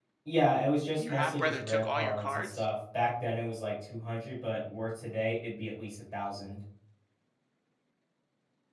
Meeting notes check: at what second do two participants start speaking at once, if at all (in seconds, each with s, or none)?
0.9 s